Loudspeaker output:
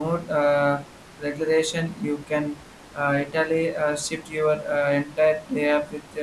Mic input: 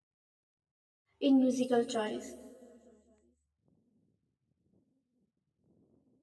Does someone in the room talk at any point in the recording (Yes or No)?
Yes